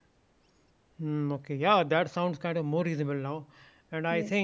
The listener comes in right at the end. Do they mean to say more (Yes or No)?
No